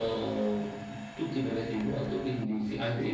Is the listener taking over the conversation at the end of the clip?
Yes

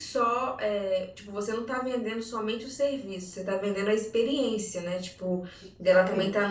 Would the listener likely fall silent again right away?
Yes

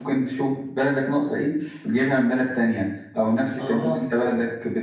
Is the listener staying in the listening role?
Yes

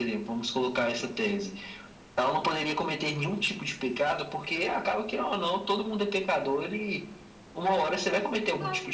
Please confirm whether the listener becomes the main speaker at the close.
Yes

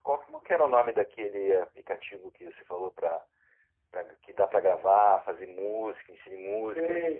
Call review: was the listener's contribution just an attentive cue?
No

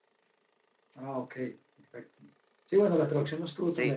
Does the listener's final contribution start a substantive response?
No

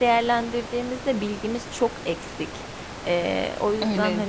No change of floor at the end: No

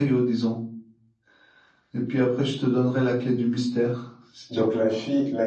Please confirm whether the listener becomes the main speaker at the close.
Yes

